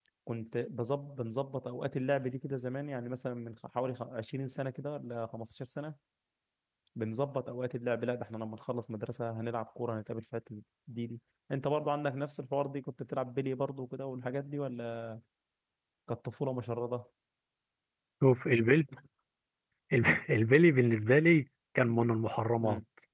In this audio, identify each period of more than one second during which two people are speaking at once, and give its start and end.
none

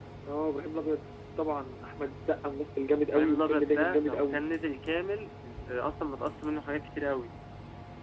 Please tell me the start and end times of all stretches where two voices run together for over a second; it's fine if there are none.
3.1-4.4

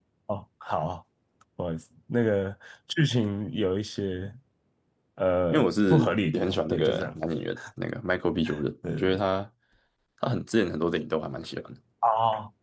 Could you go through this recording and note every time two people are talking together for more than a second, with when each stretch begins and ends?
5.5-7.2

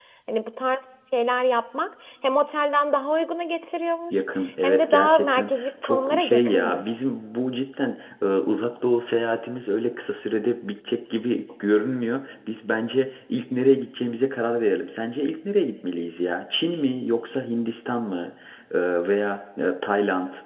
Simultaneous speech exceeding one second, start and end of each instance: 4.6-7.0

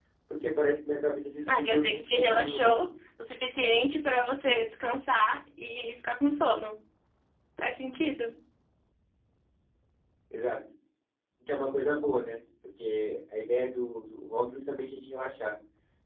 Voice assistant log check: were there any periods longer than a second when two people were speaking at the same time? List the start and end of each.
1.5-2.8

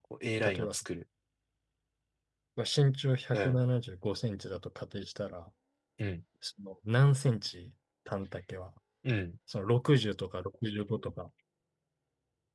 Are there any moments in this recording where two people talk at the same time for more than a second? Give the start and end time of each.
none

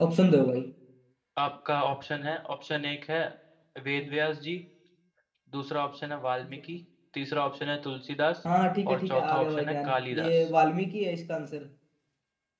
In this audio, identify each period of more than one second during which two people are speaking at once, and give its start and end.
8.9-10.4

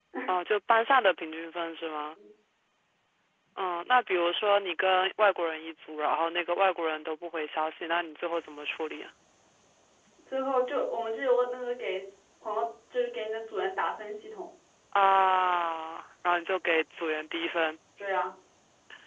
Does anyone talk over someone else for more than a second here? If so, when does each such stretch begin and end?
none

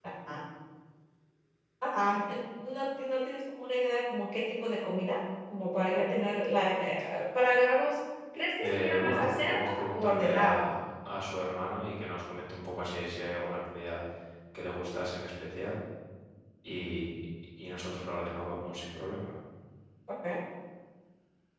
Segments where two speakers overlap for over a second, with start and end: 8.6-10.7

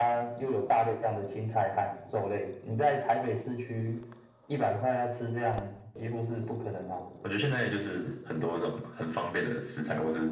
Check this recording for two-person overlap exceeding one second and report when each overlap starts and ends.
none

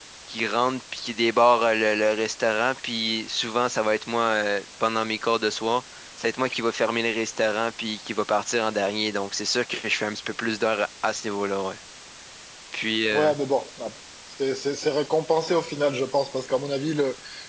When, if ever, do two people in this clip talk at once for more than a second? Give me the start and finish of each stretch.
none

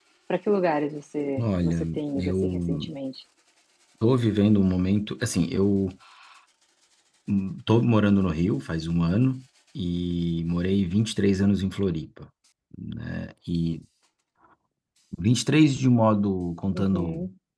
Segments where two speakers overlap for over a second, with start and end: 1.4-2.9

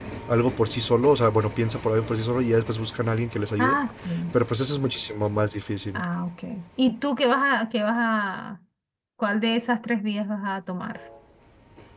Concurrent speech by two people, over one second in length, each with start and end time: none

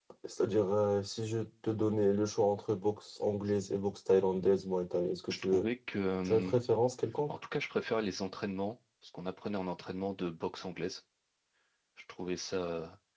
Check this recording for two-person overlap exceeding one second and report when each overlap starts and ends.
none

